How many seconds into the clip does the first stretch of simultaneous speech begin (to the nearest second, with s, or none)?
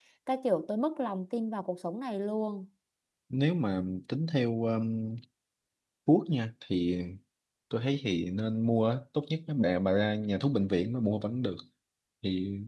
none